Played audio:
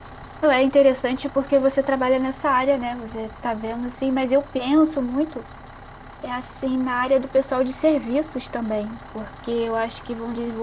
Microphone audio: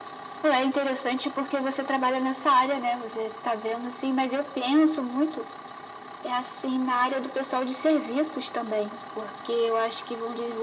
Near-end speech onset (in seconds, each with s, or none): none